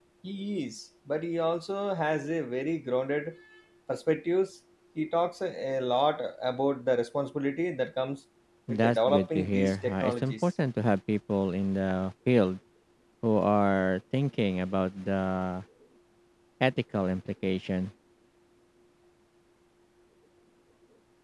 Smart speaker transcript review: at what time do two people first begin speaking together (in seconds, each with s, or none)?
8.7 s